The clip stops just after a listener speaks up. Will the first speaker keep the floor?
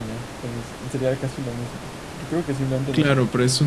No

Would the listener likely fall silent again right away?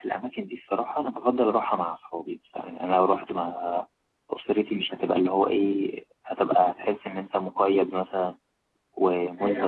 Yes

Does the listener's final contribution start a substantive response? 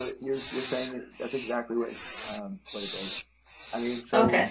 No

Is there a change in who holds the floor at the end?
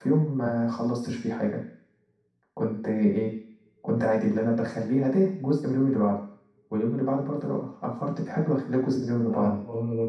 Yes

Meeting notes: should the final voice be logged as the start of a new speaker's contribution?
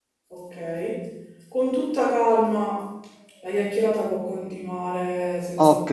Yes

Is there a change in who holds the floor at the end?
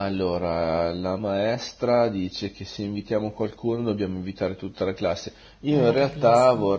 No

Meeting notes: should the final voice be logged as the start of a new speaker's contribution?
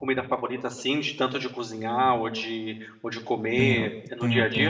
Yes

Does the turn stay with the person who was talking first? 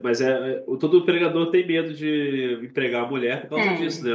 Yes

